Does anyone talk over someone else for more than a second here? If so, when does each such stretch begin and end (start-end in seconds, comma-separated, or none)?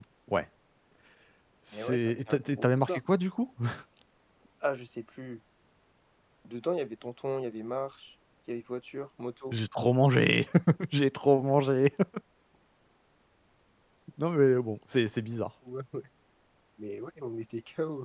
1.7-3.0